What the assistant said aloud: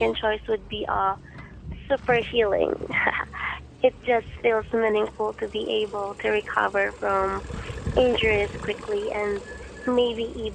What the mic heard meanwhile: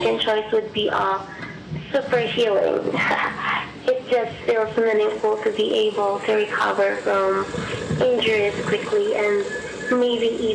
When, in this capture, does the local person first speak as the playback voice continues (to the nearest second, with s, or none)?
none